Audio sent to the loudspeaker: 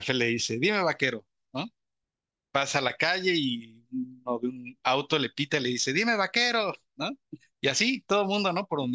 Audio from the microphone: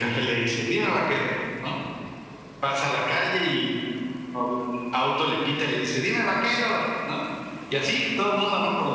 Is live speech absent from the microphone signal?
Yes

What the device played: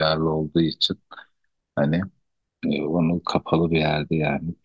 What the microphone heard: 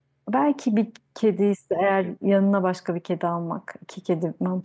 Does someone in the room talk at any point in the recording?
Yes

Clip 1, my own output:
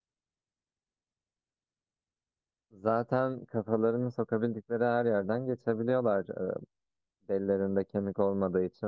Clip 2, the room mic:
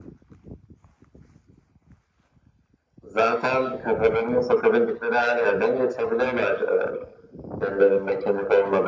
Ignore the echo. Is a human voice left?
No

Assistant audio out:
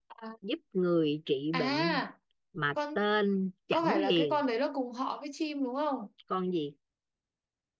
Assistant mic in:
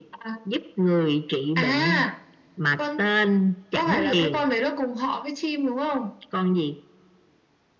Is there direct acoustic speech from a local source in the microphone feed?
No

